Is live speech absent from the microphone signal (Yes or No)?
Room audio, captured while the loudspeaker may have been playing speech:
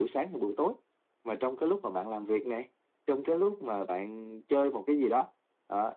Yes